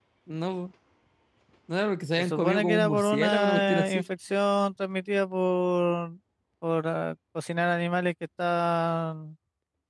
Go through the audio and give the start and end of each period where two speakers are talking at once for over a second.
2.2-4.0

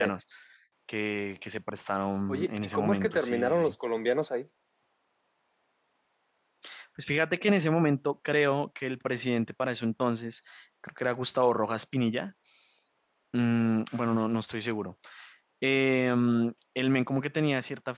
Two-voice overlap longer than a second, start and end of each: 2.3-3.7

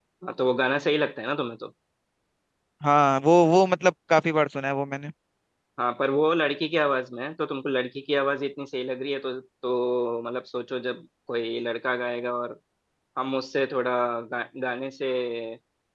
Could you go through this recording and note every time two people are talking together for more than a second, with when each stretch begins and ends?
none

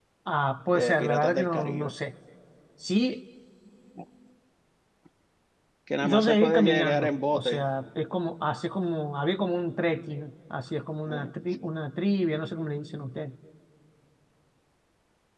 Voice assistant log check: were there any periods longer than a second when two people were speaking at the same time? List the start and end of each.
0.7-1.9, 6.0-7.7

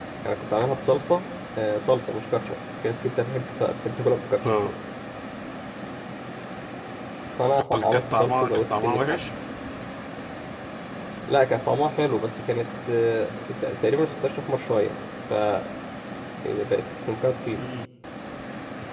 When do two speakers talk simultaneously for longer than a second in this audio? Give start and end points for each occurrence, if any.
7.7-9.2

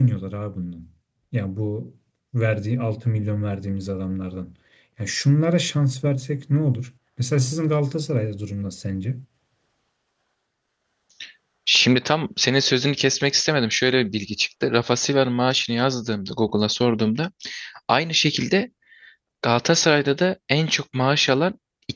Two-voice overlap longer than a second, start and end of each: none

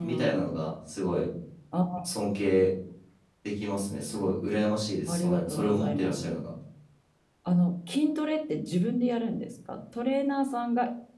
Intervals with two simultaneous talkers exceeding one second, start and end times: 5.1-6.4

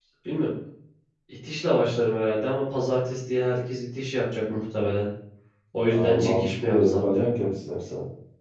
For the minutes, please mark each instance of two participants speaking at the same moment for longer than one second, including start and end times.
5.9-7.3

